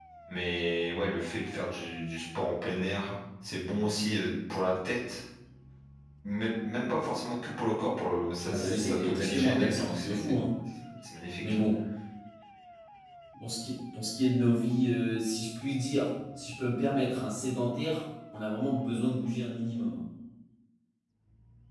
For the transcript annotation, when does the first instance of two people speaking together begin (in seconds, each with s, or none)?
8.4 s